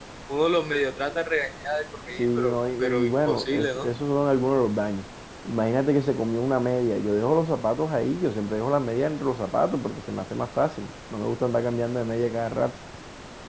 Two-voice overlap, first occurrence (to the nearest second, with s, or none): 2 s